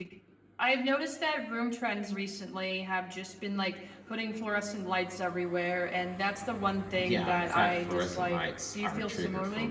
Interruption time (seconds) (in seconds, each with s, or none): 7.0 s